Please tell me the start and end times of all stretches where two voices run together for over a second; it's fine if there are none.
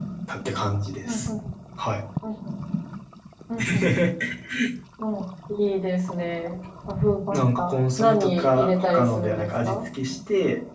7.3-9.8

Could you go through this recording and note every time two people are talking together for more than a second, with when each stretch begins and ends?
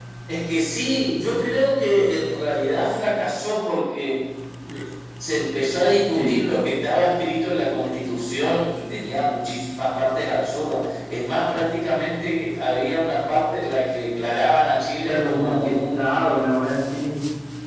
15.0-16.3

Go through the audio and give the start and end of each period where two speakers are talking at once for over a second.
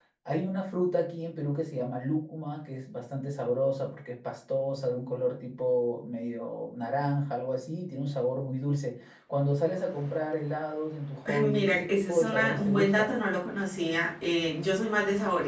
11.4-13.2

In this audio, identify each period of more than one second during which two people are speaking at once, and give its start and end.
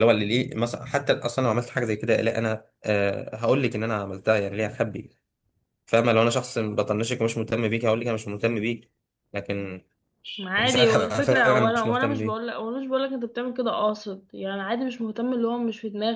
10.6-12.3

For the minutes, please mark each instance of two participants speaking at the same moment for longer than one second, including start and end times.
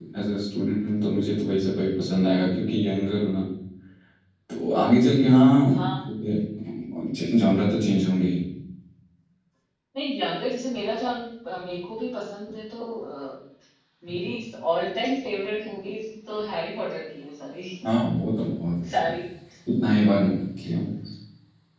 none

